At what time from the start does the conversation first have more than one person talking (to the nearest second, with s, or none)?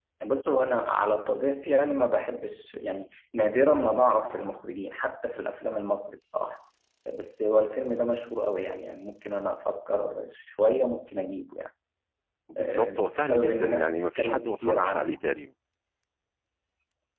13 s